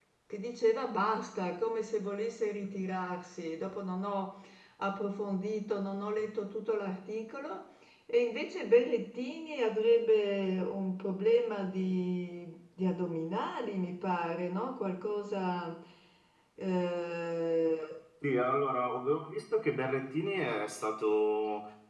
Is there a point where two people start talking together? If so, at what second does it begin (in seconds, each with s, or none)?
none